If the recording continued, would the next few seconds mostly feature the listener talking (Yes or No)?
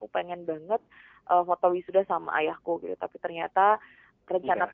No